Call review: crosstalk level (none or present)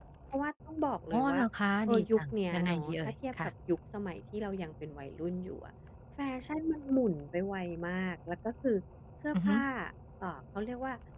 present